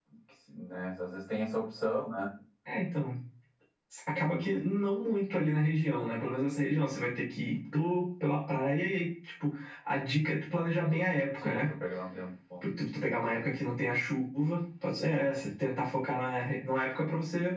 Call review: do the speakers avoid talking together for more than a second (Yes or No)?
Yes